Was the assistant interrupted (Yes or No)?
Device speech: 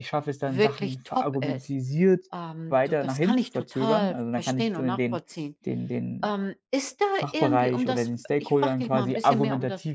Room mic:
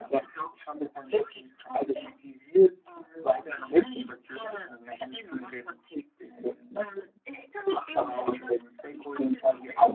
No